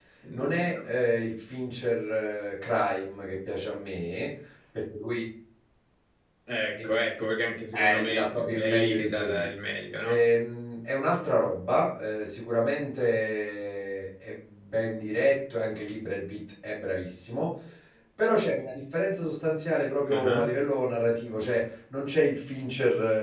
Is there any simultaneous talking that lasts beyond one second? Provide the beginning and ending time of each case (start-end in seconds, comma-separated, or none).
7.7-9.5